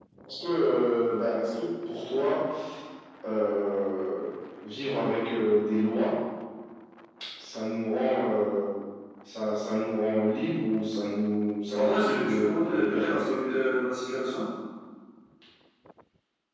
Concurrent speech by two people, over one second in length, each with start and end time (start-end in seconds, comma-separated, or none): 11.8-13.3